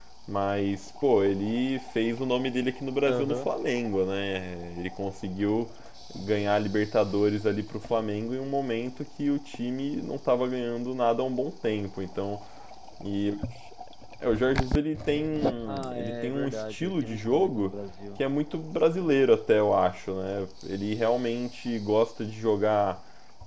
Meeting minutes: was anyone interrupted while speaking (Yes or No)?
Yes